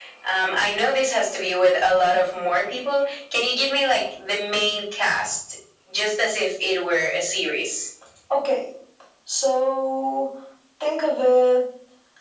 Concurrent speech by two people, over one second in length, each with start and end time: none

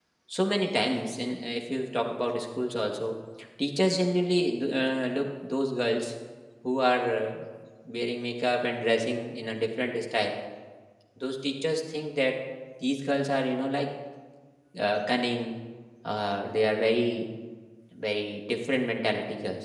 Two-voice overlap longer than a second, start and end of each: none

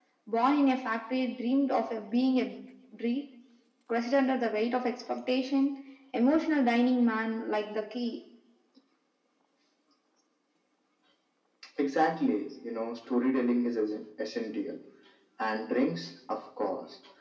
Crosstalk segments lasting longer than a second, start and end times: none

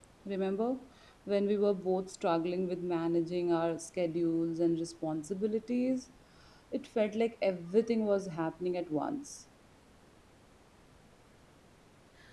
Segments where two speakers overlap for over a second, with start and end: none

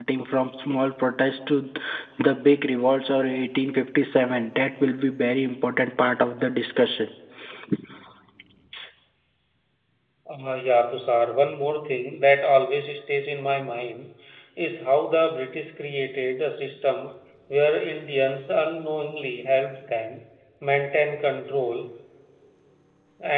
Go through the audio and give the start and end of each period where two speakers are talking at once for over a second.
none

